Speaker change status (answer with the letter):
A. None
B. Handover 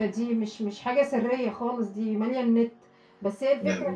A